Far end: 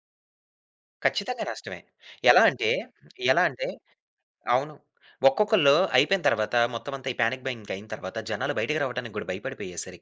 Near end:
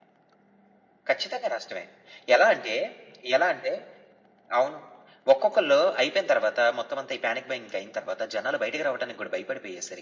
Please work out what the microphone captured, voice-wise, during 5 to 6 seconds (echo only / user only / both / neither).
echo only